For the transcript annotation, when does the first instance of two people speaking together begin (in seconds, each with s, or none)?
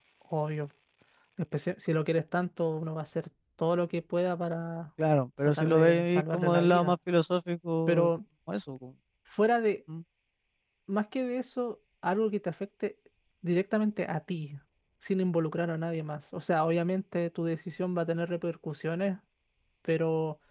5.5 s